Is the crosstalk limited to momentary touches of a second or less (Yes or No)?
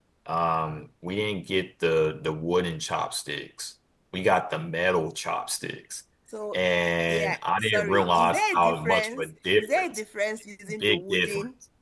No